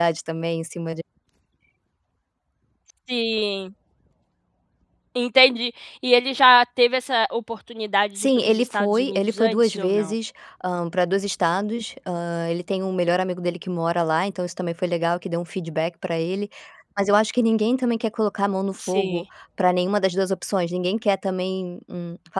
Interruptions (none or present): present